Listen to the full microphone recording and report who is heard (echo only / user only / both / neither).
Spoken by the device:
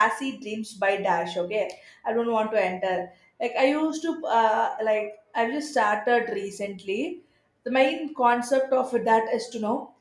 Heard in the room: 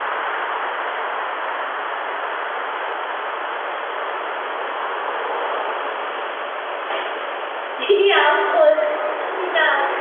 user only